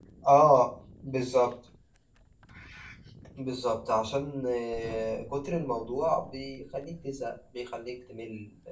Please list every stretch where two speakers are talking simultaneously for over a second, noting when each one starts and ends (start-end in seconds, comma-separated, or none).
none